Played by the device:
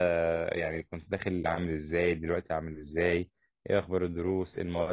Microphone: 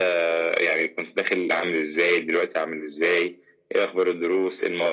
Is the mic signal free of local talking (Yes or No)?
Yes